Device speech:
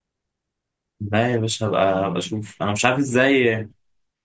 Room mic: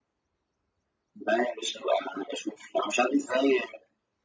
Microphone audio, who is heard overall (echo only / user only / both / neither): echo only